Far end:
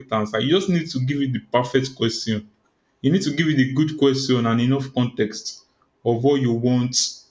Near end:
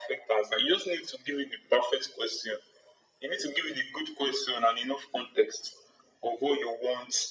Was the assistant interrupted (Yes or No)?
No